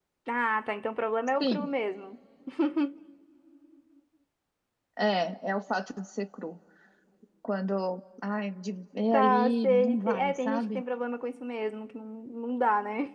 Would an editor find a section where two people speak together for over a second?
Yes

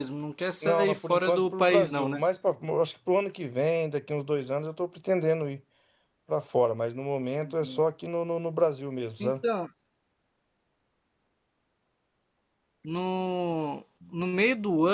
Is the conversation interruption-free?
No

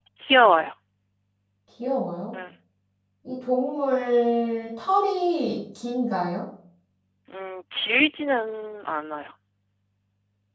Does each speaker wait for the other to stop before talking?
Yes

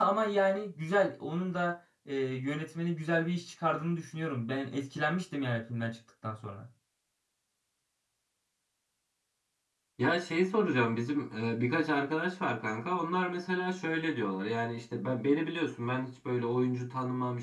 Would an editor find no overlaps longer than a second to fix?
Yes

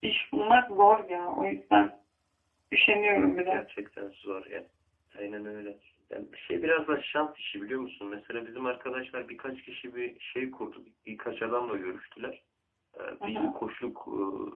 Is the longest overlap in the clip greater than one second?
No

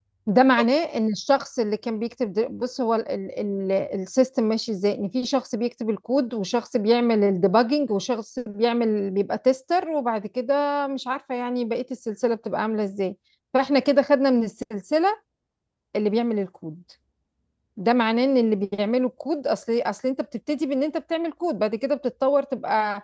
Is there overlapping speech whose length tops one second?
No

